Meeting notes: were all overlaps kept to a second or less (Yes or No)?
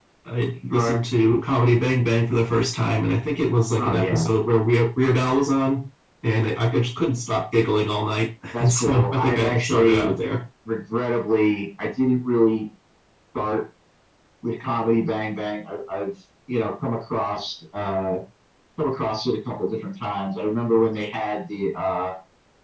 No